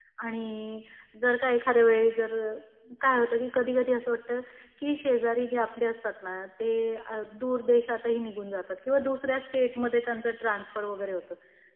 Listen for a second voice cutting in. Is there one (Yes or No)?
No